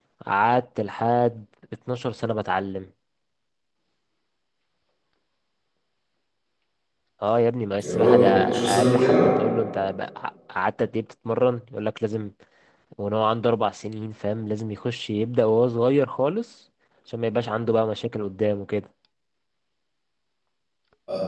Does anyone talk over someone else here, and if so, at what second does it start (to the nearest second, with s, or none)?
8 s